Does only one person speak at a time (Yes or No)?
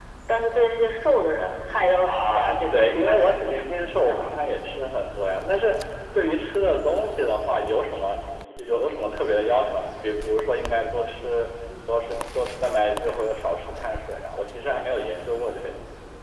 No